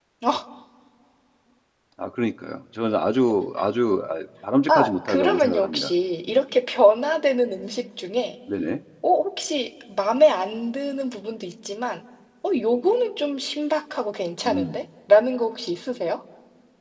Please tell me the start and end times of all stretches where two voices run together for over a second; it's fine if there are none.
4.7-5.9

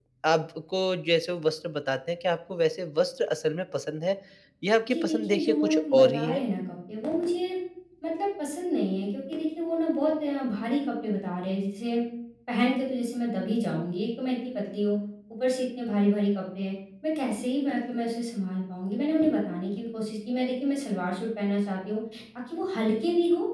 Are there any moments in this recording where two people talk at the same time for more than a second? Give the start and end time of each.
4.9-6.4

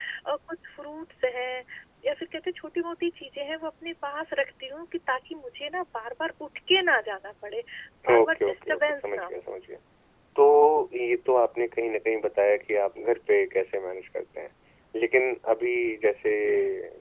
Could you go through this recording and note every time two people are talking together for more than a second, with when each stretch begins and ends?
8.1-9.4

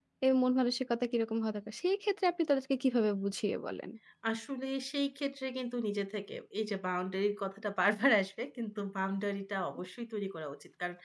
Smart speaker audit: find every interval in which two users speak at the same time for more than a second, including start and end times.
none

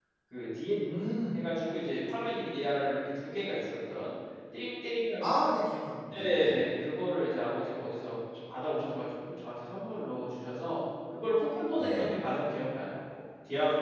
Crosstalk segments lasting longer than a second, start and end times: none

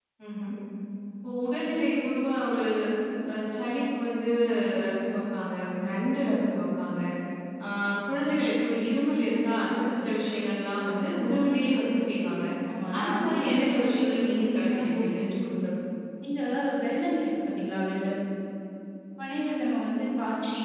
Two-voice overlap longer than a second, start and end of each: 13.0-15.2

